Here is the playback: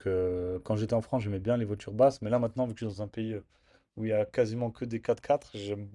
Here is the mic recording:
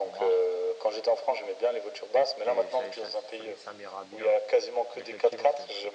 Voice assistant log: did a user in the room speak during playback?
Yes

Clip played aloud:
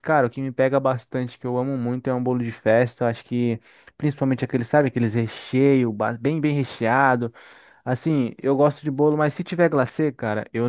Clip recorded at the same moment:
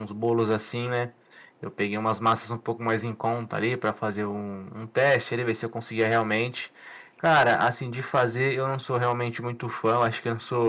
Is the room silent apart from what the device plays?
No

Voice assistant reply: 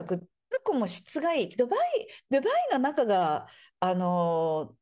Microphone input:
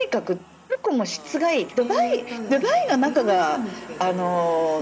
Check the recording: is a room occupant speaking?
Yes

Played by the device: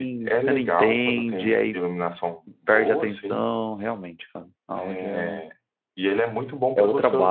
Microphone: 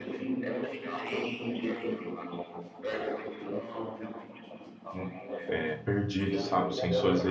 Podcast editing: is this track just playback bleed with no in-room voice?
No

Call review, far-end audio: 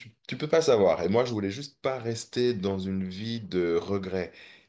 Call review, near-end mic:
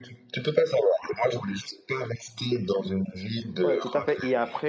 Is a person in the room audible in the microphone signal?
Yes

